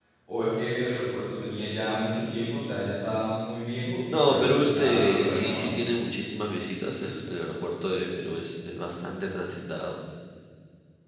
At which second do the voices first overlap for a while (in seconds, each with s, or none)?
4.1 s